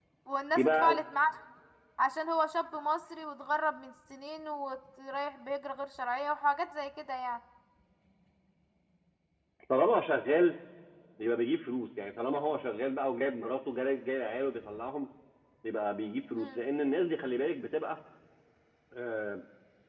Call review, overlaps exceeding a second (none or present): none